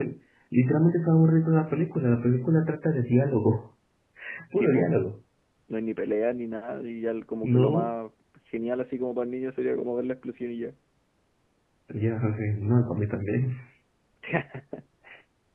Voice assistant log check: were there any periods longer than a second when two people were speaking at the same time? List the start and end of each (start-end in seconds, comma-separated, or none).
none